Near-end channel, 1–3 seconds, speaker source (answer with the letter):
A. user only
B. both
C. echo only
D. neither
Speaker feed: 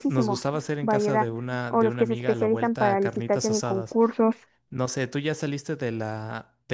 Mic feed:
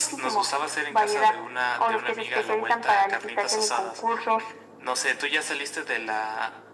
C